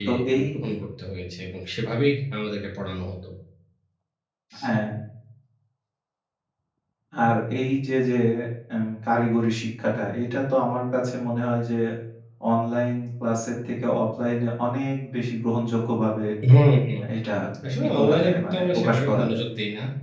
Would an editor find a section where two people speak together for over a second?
Yes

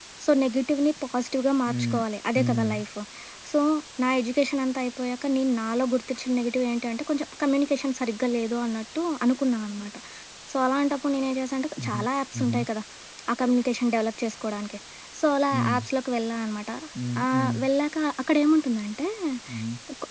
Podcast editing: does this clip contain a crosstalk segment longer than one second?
No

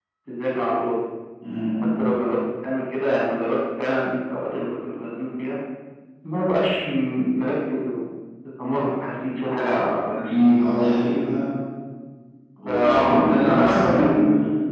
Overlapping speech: Yes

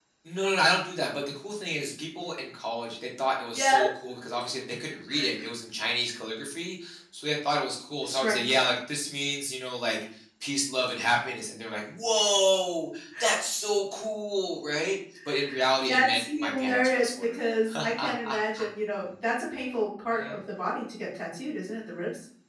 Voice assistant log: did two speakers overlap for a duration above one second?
Yes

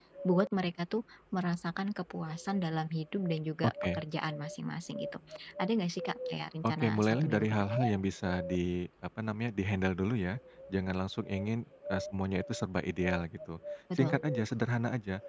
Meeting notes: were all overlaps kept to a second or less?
No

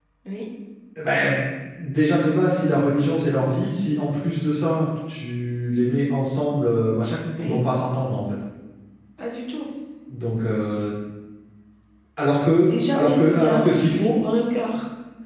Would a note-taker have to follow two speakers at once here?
Yes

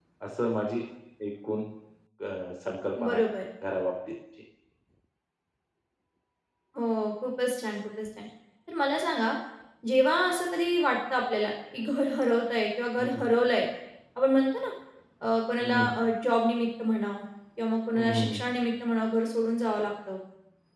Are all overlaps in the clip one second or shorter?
Yes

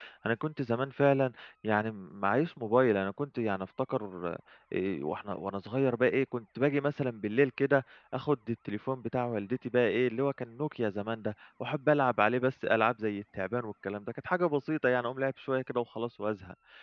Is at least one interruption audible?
No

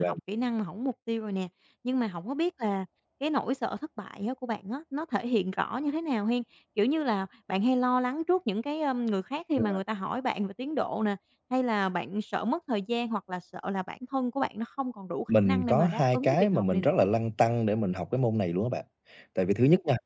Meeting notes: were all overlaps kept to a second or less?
No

